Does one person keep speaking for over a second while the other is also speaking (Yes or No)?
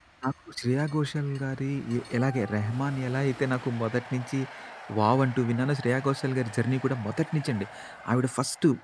No